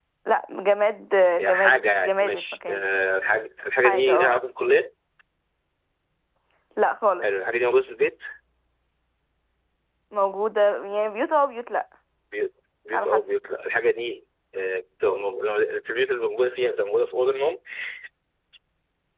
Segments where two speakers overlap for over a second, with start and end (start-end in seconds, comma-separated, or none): 1.4-2.8